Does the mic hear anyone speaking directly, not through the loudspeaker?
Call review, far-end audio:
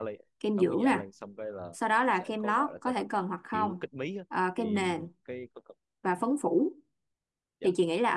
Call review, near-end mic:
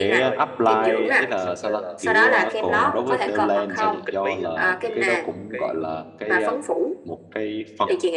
Yes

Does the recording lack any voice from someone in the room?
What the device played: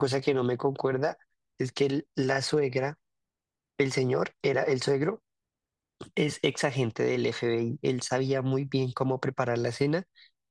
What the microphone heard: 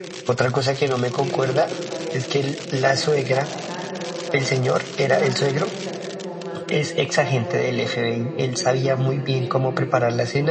No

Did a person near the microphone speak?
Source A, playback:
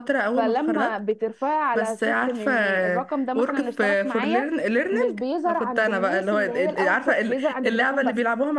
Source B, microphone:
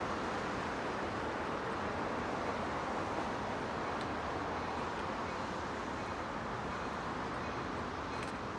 No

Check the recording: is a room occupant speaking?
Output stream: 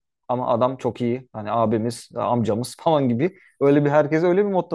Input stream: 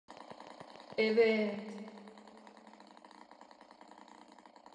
Yes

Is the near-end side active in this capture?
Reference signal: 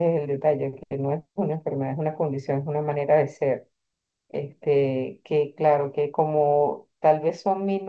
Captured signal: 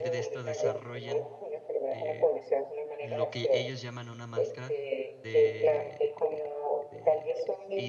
Yes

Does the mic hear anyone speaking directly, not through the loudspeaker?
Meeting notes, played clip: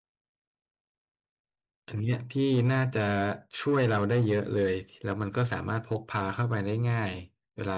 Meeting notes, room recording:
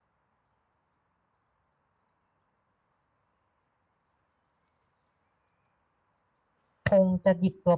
Yes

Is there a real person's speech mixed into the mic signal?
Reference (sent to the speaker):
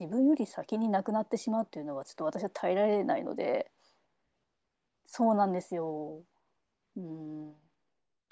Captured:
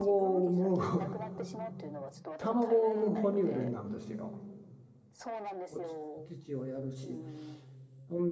Yes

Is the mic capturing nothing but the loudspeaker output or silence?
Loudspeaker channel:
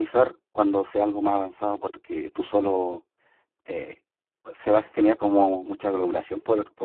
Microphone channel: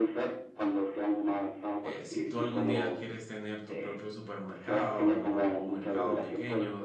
No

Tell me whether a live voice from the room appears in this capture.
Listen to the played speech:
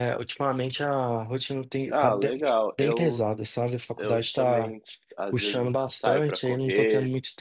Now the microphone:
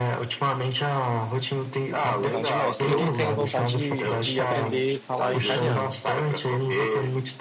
Yes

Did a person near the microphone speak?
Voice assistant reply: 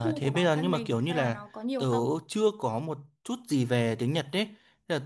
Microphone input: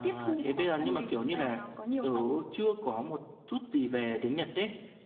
No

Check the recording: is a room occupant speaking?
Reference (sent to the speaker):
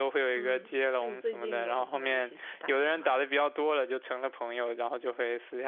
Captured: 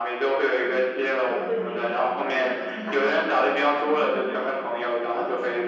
Yes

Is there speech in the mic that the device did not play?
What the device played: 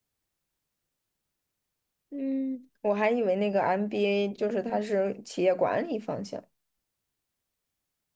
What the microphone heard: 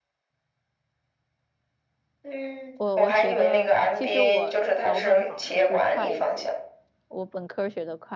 Yes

